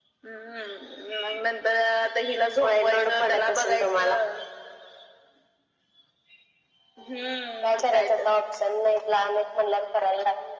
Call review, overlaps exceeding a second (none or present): present